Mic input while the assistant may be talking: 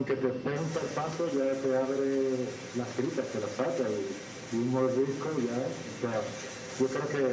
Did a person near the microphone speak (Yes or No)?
No